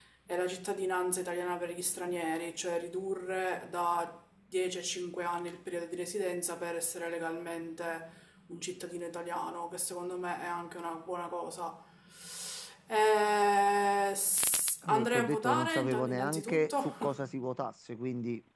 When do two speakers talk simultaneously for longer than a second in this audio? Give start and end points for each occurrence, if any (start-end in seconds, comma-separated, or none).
14.8-17.3